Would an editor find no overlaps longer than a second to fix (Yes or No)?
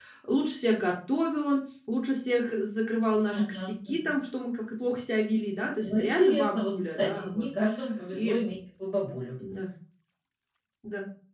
No